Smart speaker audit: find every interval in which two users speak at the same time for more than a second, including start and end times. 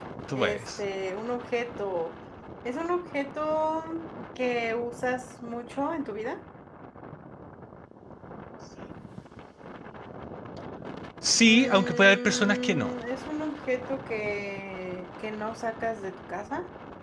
11.4-12.9

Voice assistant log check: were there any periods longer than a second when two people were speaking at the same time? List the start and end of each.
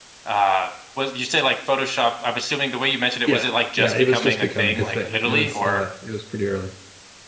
3.3-5.8

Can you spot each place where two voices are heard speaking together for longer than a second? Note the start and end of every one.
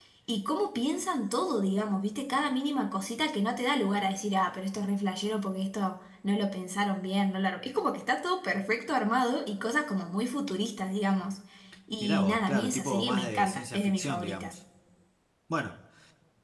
12.0-14.5

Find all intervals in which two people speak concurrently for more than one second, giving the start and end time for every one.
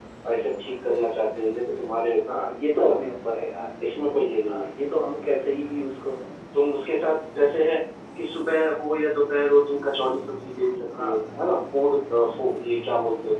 none

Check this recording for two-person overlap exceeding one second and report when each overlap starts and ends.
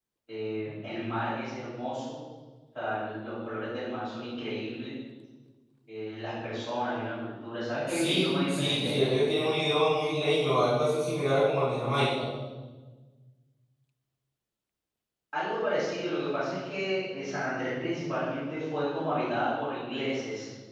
7.9-9.1

